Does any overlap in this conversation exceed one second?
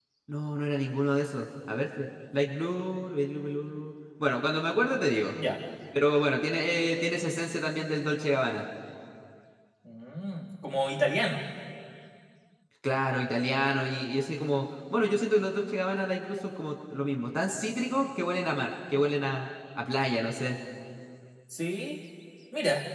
No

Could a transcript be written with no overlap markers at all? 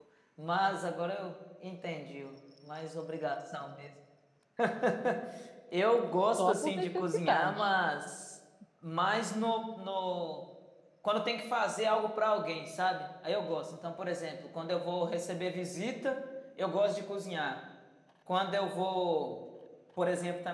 No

